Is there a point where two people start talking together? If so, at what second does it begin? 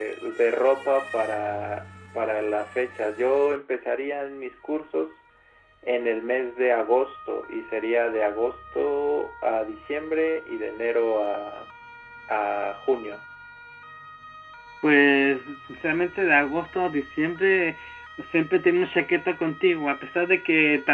none

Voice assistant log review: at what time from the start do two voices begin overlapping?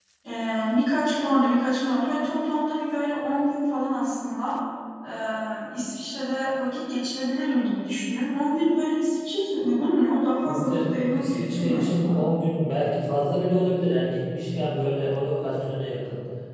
10 s

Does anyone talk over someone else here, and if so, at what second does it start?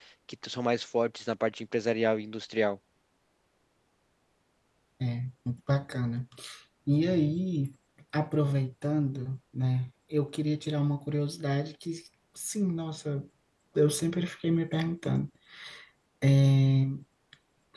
none

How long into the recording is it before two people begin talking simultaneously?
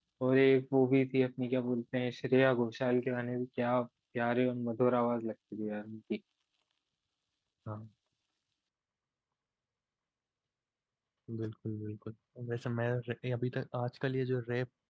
none

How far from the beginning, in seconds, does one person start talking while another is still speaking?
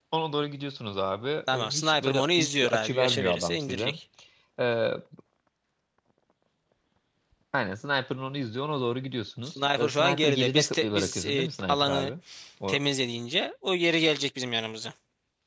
2 s

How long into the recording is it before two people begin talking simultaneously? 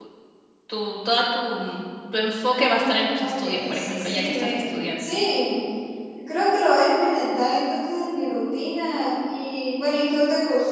2 s

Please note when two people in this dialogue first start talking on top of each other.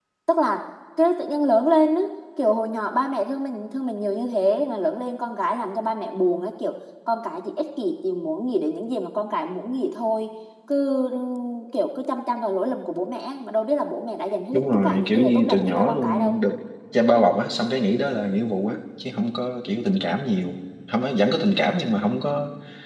15 s

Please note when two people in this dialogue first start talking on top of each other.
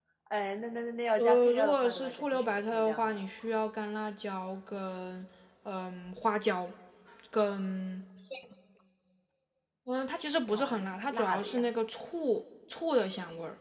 1 s

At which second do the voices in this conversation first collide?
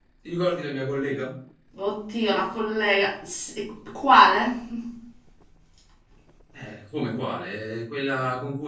none

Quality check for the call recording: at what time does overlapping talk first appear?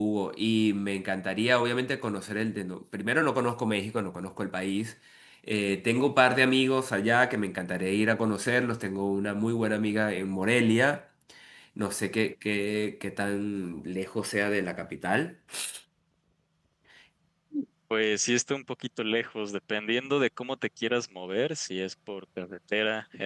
none

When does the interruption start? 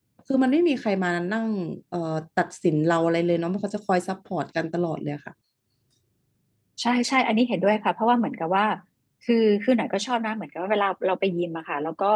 none

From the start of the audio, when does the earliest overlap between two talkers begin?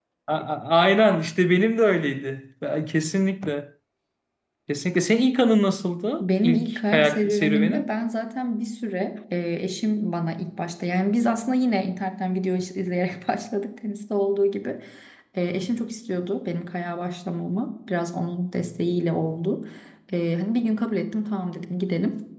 6 s

